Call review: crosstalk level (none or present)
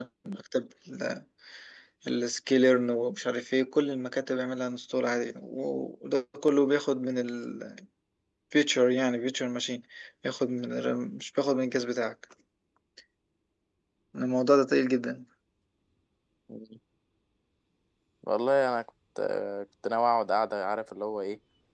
none